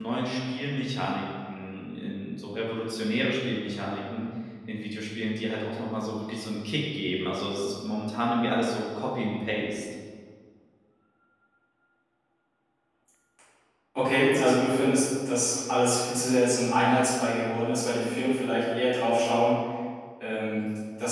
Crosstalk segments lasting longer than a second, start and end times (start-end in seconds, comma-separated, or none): none